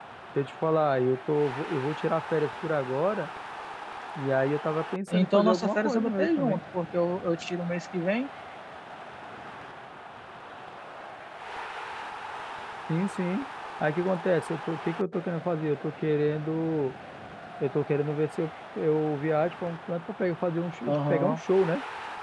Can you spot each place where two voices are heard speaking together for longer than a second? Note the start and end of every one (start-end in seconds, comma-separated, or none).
5.1-6.6